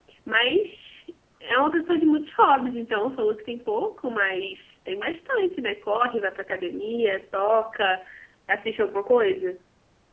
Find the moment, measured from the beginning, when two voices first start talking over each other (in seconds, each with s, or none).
none